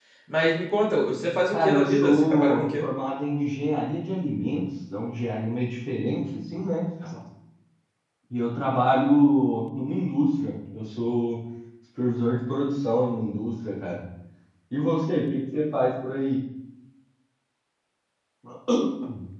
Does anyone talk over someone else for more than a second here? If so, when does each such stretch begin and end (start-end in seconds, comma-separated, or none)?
1.5-2.8